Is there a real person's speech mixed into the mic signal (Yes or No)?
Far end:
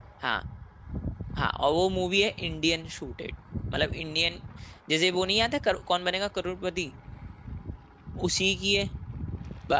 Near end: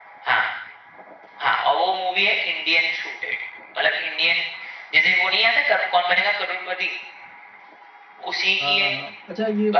Yes